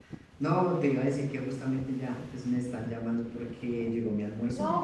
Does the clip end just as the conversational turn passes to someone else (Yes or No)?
Yes